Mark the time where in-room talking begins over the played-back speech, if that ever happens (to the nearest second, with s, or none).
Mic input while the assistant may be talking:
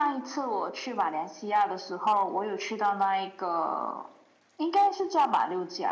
none